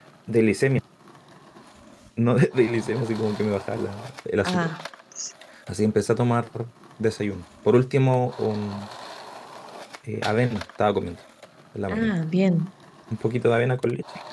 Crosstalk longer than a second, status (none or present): none